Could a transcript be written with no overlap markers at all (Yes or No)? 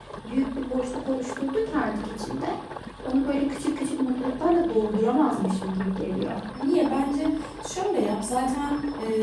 Yes